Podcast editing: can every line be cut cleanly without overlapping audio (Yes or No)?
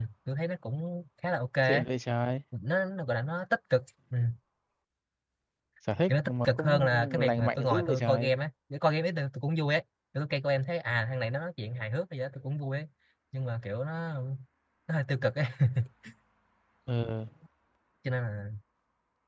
No